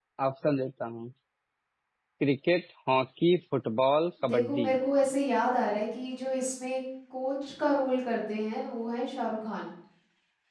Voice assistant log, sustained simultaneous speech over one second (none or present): none